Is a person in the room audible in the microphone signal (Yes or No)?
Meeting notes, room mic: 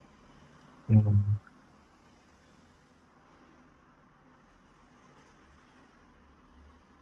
Yes